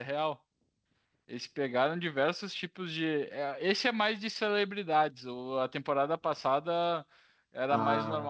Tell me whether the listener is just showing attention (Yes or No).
Yes